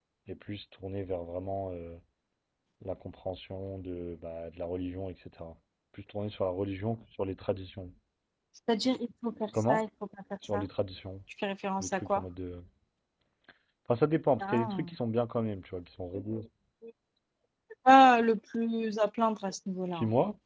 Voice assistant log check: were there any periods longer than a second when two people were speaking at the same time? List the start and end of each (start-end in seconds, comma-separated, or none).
none